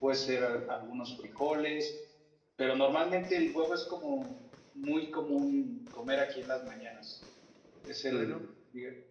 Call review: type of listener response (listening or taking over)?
listening